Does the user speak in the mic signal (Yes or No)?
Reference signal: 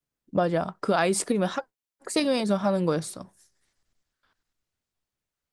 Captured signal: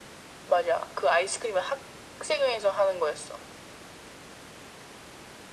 No